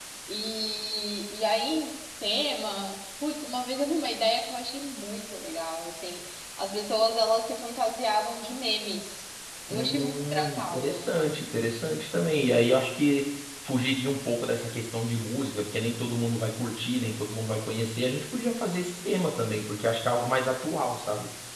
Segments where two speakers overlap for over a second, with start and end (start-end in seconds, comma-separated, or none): 9.7-11.0